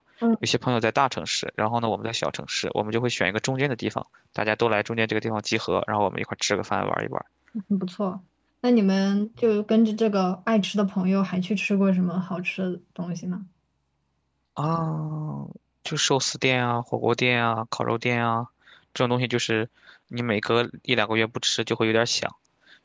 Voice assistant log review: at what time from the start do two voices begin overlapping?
none

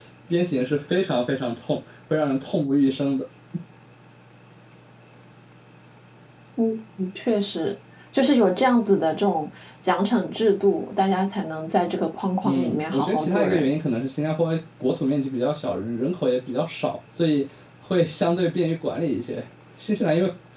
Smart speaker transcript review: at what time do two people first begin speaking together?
12.4 s

